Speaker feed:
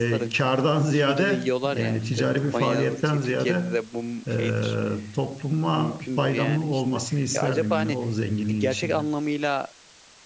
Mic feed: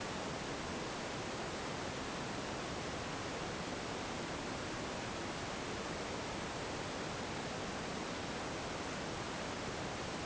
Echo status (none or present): none